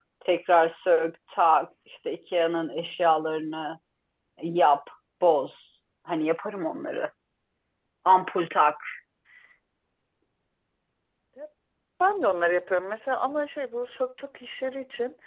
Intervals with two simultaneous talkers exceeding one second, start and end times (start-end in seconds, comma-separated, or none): none